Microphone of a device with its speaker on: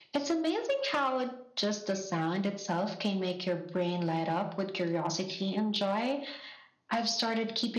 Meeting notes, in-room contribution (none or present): none